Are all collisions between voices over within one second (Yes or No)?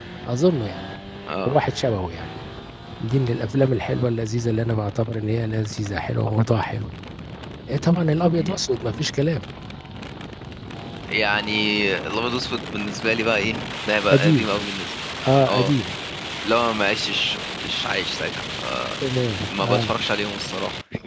Yes